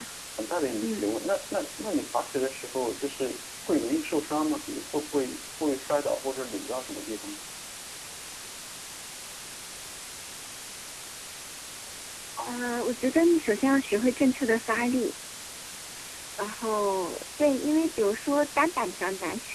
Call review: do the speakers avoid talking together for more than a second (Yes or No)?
Yes